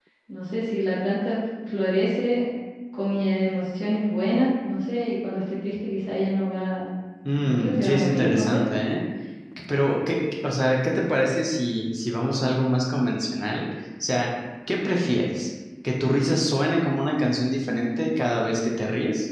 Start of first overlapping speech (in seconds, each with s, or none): 7.4 s